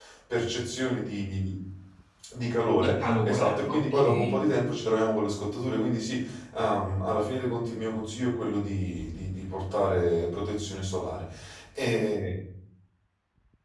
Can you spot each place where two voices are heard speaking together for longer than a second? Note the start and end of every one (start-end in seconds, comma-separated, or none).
2.8-4.5